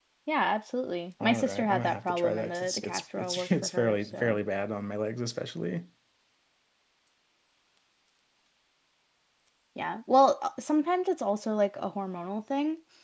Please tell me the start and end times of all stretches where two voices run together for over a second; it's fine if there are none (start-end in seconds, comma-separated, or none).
1.2-4.4